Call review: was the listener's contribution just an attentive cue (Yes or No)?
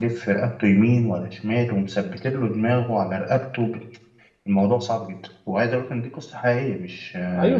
No